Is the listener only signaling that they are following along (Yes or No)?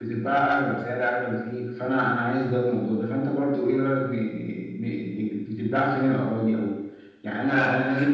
No